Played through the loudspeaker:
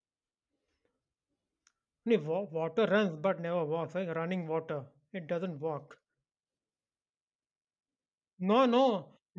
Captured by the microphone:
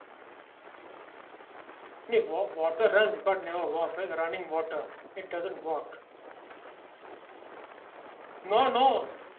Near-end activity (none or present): none